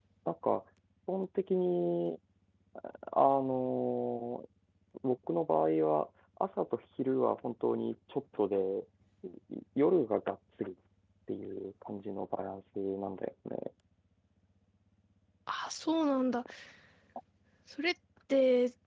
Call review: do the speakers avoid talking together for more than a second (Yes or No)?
Yes